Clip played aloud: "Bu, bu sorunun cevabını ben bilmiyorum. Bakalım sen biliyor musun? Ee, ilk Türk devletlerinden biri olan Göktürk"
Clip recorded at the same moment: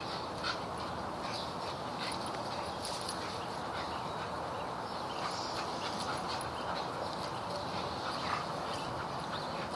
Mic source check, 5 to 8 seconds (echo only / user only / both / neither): neither